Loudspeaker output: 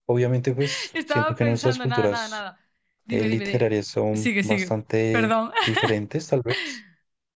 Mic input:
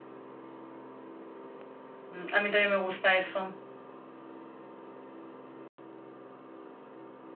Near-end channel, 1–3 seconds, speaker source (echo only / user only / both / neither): user only